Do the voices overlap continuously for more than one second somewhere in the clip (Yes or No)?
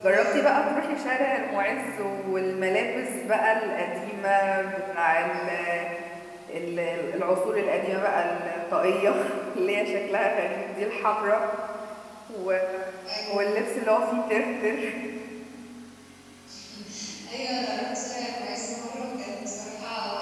No